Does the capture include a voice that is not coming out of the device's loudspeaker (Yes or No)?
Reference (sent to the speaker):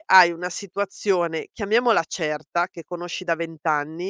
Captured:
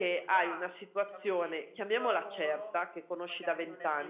Yes